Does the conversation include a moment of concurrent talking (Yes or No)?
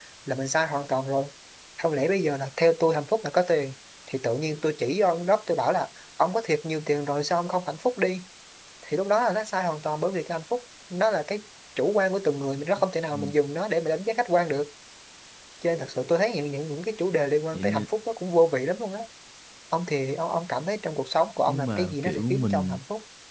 Yes